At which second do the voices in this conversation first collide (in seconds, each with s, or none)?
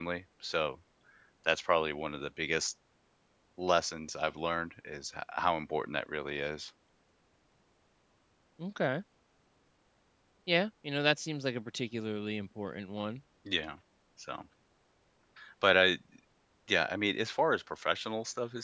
none